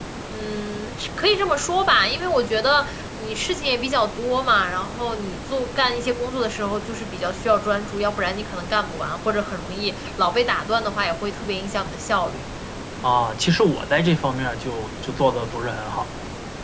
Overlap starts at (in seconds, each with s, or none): none